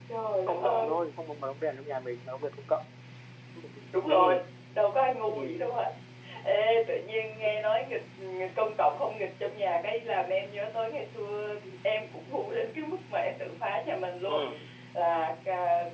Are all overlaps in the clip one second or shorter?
Yes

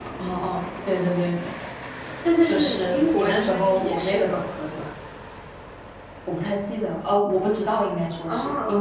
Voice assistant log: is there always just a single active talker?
No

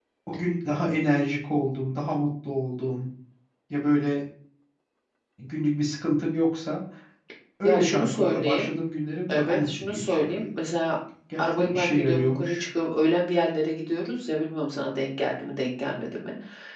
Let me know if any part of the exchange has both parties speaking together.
Yes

